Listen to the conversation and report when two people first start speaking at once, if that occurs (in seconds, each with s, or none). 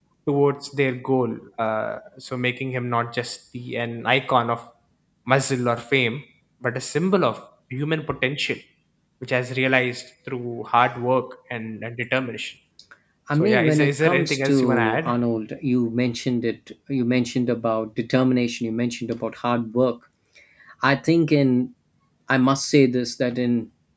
13.3 s